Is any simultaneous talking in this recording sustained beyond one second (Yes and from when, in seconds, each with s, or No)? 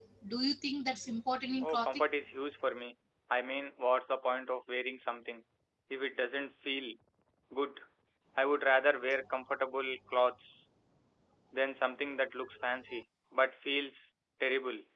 No